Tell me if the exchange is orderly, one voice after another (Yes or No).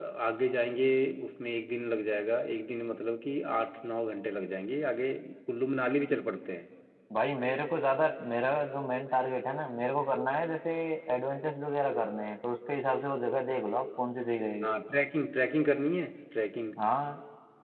Yes